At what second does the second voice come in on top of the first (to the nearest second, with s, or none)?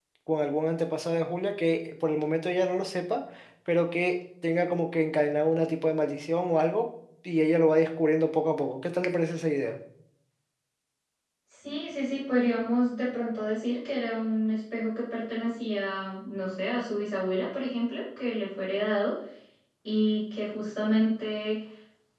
none